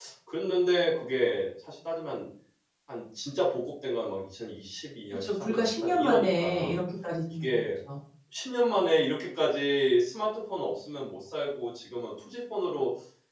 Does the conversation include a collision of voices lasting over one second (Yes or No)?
Yes